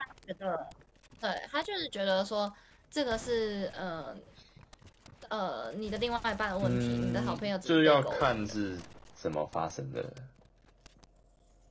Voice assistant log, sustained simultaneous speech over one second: present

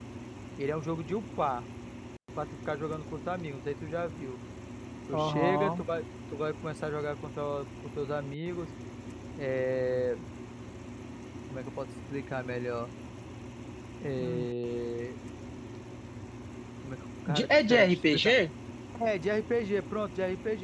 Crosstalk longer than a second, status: present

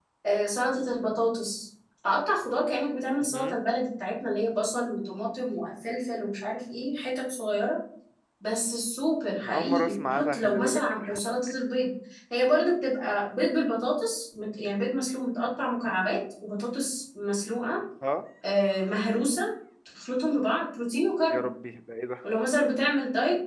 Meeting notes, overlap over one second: present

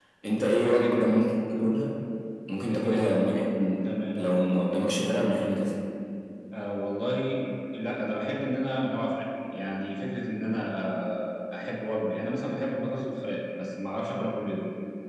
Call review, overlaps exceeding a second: present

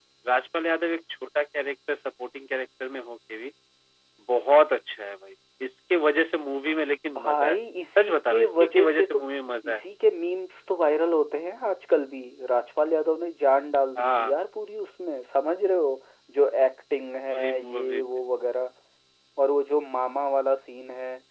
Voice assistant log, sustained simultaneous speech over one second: present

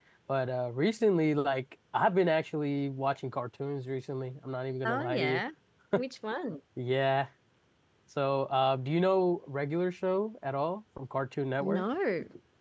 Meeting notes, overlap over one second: none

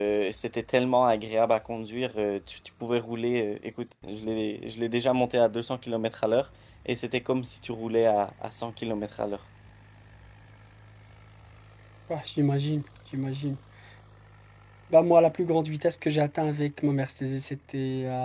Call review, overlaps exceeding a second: none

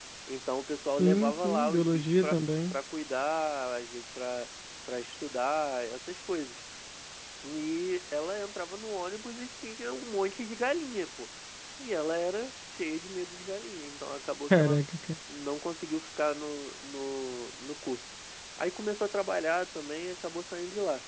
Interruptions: present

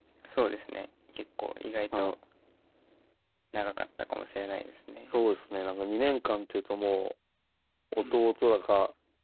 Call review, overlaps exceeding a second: none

